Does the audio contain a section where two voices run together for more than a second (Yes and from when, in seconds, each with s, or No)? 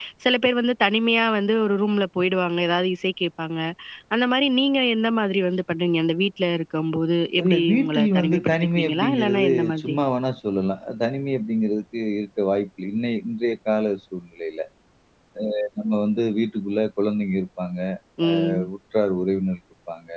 Yes, from 7.4 s